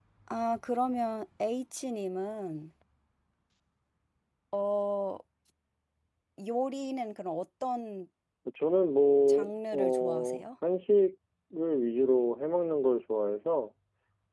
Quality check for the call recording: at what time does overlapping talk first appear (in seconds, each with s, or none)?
9.3 s